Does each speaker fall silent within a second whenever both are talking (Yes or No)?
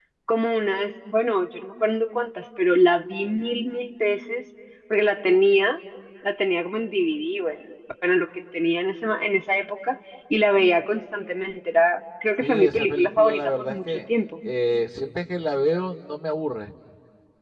No